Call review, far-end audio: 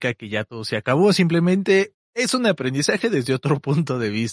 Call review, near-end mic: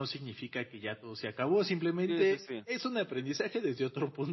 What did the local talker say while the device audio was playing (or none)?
Sí, sí, sí.